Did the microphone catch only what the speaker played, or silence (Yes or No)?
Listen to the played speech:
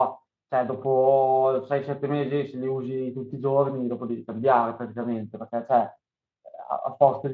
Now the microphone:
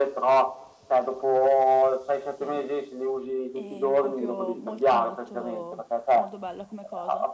No